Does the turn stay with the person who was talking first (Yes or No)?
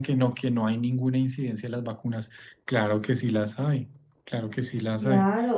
No